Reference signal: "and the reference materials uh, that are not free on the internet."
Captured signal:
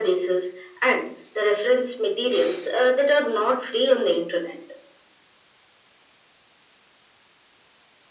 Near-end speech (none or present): none